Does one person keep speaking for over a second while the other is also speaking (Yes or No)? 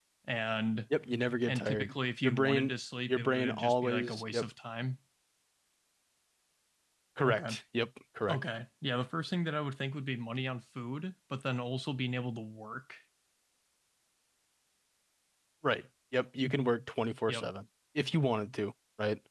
Yes